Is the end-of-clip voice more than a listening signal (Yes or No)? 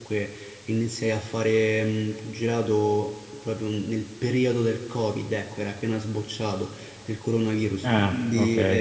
No